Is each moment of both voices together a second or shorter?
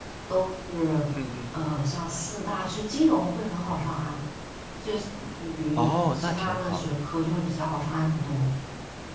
No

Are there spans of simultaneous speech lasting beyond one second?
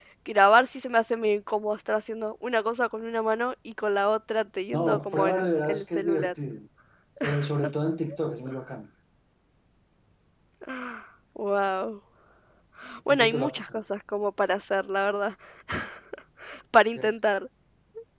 Yes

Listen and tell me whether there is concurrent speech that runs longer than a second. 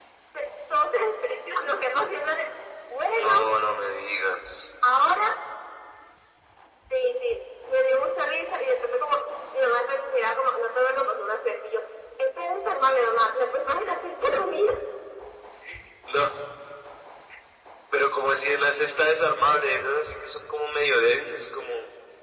No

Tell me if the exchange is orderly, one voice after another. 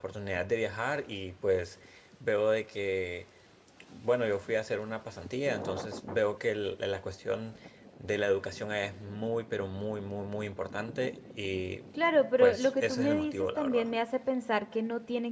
No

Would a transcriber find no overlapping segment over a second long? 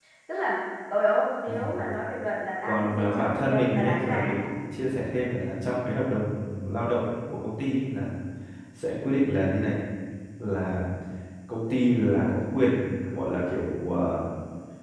No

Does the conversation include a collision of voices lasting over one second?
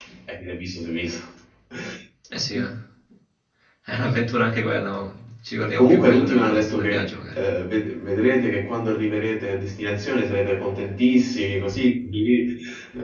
Yes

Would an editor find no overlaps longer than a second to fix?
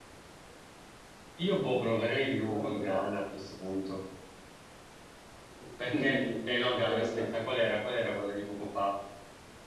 No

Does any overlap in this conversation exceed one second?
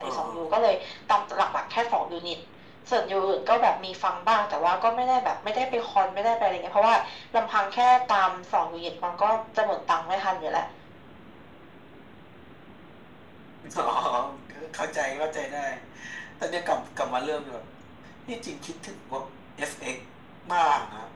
No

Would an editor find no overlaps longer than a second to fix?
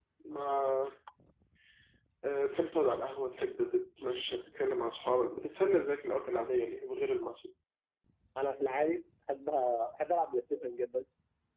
Yes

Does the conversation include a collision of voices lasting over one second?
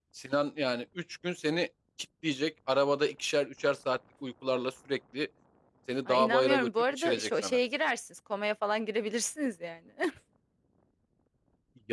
Yes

